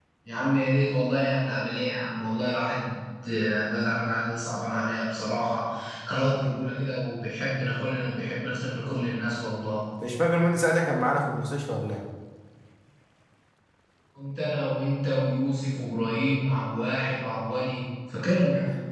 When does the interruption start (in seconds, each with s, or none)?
none